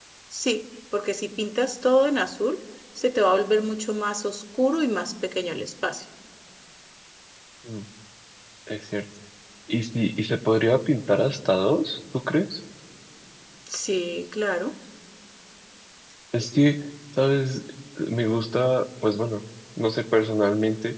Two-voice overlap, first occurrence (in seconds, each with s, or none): none